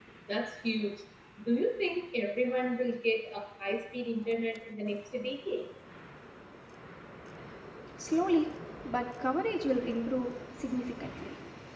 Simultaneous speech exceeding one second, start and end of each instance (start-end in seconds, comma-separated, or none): none